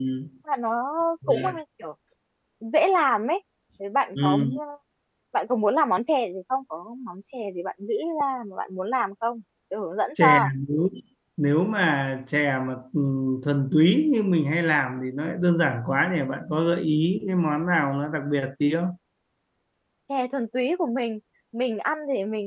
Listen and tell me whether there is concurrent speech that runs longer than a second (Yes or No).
No